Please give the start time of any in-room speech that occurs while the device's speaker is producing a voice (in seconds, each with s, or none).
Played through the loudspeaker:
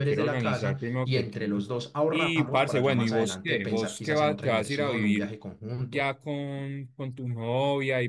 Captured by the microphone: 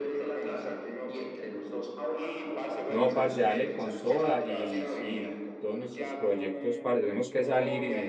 2.9 s